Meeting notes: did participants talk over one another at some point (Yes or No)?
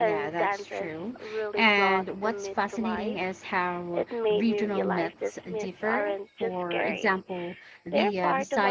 Yes